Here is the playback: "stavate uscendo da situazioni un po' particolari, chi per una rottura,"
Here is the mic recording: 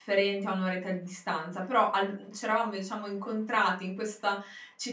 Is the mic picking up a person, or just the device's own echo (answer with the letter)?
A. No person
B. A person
B